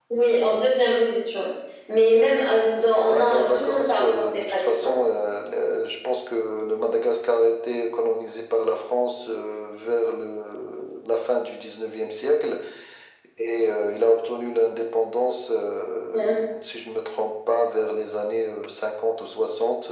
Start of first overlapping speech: 2.9 s

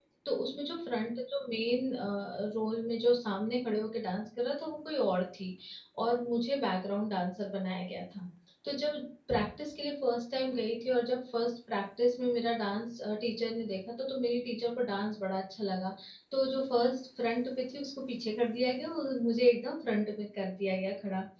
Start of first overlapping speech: none

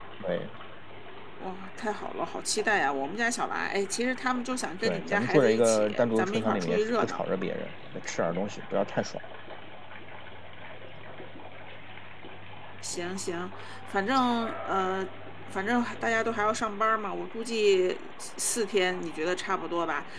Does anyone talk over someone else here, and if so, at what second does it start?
4.8 s

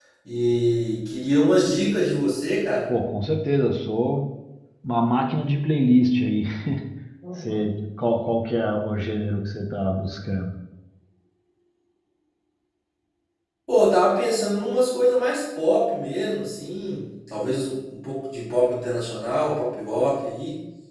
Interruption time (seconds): none

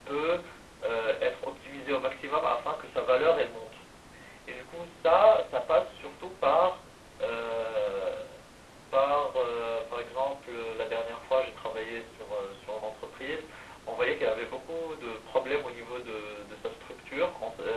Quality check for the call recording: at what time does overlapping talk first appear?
none

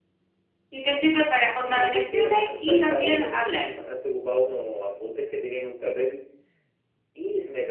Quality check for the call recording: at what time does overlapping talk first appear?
1.7 s

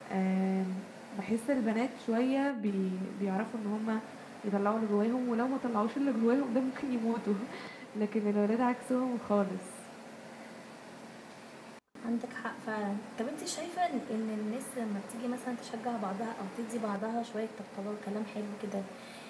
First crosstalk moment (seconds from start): none

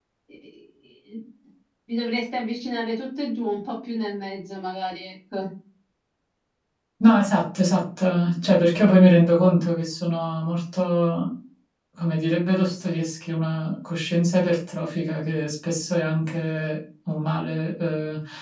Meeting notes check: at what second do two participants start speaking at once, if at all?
none

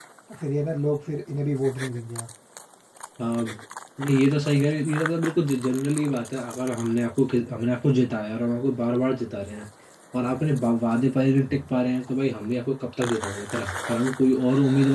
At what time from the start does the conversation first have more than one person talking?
none

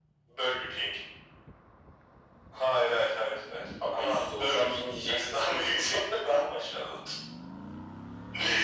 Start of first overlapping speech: 3.8 s

